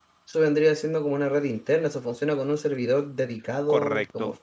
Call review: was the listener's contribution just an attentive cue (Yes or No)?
No